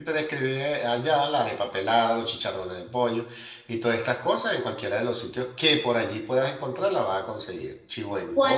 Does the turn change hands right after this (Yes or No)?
Yes